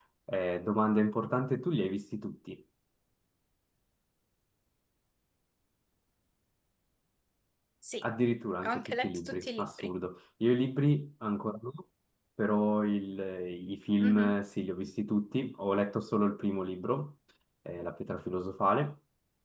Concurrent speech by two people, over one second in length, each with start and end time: 8.6-9.9

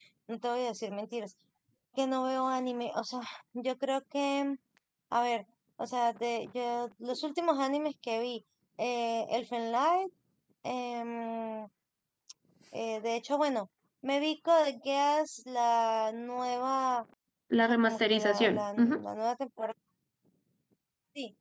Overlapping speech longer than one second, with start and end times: 17.6-19.0

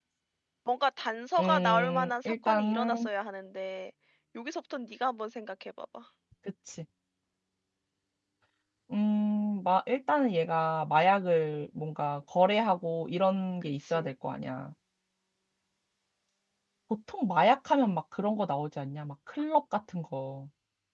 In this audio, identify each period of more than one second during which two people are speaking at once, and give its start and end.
1.4-3.1

